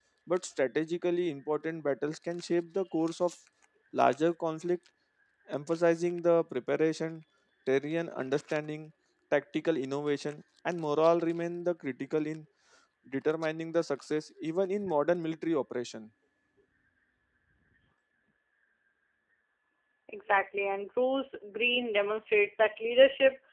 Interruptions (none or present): none